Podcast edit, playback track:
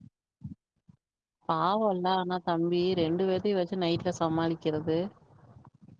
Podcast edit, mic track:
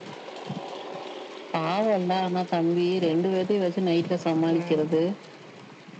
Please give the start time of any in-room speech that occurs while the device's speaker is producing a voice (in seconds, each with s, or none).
4.5 s